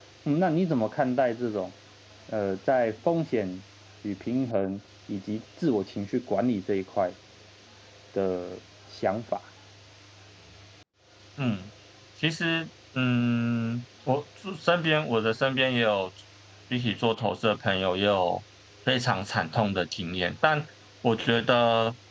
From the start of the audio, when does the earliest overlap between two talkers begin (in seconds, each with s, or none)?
none